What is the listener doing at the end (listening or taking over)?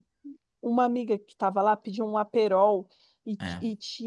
listening